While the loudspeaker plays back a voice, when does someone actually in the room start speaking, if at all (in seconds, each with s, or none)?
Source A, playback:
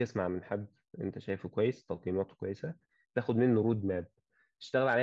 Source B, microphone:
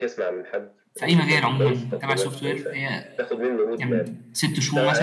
1.0 s